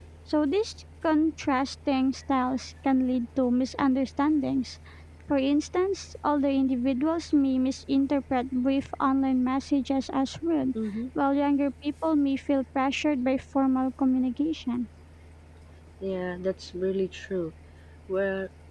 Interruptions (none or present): none